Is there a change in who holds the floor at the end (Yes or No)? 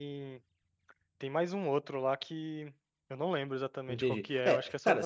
Yes